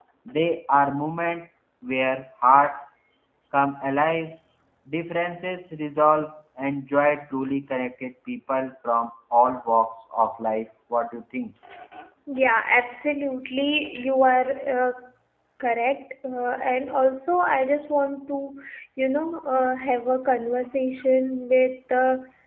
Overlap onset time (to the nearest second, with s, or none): none